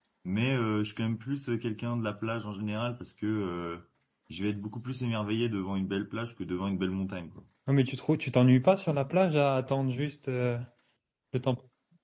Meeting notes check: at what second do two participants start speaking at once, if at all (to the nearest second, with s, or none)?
none